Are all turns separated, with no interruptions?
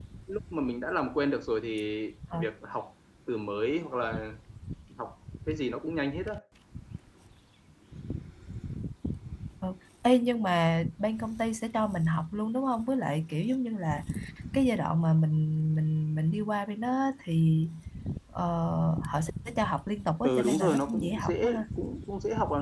No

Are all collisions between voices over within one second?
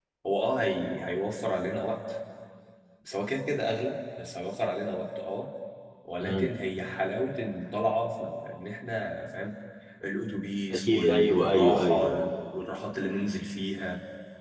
No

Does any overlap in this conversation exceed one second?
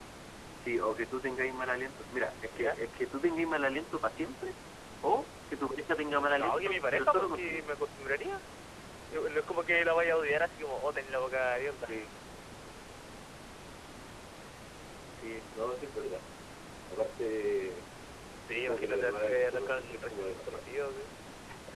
Yes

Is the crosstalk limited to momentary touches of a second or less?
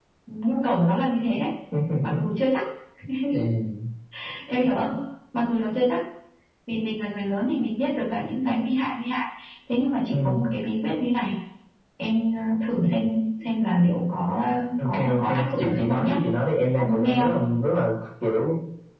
No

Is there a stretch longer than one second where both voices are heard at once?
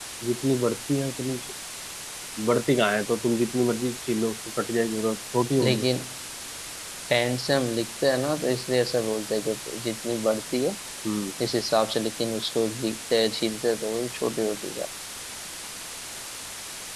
No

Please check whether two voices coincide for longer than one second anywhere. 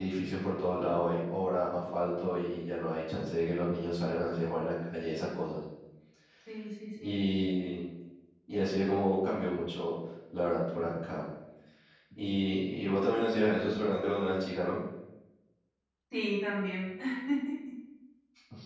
No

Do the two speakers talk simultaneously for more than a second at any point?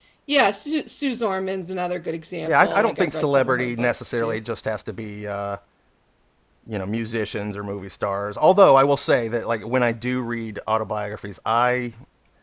Yes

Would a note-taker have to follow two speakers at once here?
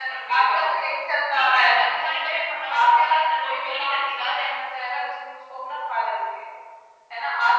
Yes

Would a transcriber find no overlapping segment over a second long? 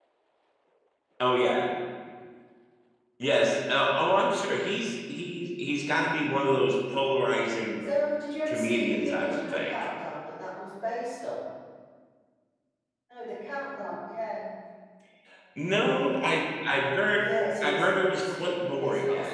No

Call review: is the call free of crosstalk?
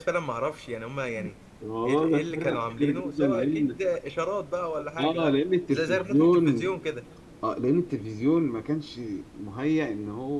No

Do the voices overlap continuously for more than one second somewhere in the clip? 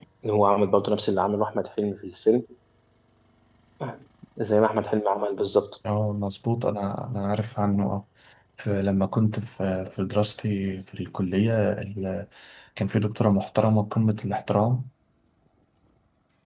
No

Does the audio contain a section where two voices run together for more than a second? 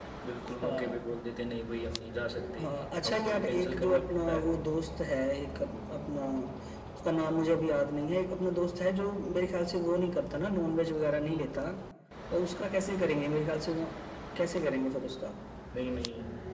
Yes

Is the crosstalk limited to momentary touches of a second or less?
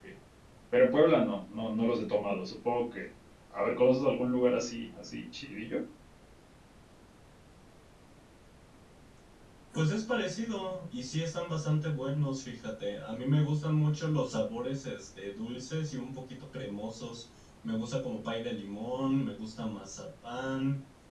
Yes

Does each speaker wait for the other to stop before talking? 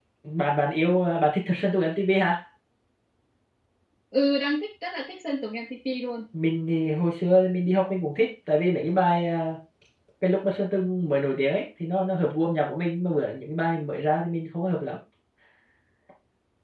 Yes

